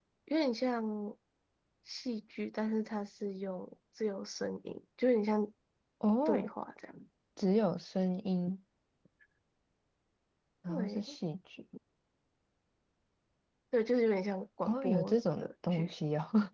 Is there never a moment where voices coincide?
No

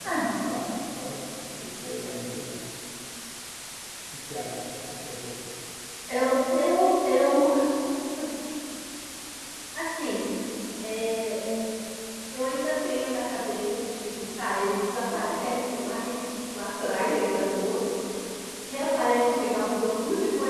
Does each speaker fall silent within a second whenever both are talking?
Yes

